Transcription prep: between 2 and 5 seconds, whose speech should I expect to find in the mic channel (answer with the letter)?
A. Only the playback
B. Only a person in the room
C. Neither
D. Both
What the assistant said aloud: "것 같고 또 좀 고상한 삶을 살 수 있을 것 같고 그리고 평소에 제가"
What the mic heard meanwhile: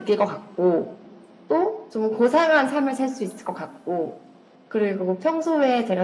A